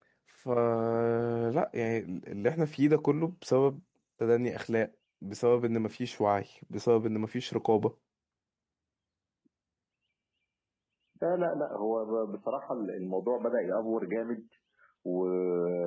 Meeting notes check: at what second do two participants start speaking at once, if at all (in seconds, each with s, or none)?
none